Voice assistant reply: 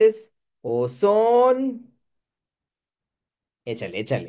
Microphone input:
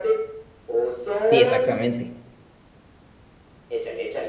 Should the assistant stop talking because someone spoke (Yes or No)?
Yes